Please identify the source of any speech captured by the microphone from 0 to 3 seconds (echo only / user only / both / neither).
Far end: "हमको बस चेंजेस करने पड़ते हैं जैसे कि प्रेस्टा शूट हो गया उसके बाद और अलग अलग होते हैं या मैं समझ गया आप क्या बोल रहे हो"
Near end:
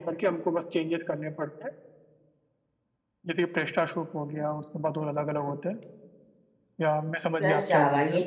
echo only